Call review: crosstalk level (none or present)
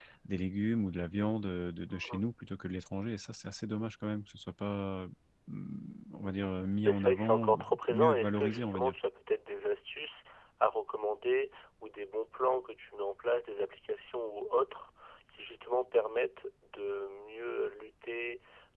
present